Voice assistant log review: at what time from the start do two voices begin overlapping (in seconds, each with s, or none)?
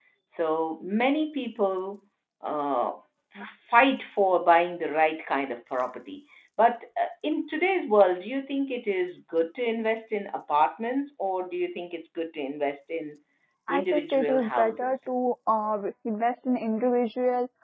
13.7 s